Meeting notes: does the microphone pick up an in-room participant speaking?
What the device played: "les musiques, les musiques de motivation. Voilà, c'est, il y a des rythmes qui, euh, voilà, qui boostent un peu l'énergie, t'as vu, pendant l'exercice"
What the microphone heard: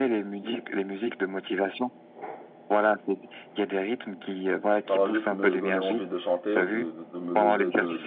Yes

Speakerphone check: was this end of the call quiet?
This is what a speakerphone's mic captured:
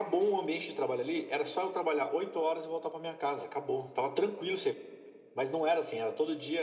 Yes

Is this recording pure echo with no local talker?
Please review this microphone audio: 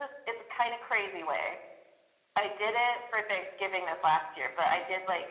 Yes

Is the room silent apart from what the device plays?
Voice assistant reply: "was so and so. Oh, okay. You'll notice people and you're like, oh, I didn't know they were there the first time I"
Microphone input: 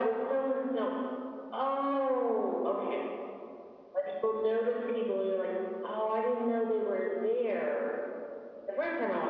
Yes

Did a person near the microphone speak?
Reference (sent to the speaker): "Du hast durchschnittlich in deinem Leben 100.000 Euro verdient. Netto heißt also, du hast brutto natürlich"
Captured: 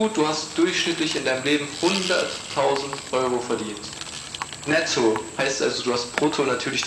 No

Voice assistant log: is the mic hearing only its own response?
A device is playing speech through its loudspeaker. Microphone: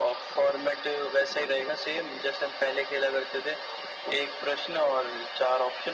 Yes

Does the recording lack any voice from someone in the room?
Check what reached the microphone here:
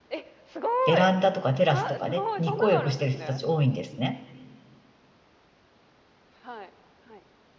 No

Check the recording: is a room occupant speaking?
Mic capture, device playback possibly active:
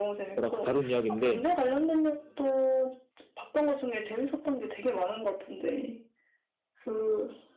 Yes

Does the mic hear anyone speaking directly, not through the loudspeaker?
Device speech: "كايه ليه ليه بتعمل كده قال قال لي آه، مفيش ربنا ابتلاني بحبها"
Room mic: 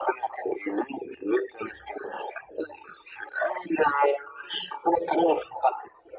No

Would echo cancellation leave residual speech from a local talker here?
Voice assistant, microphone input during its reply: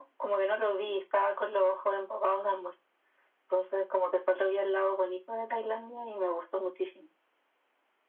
No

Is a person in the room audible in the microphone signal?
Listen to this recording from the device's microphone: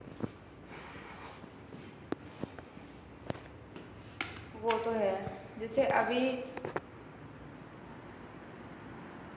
Yes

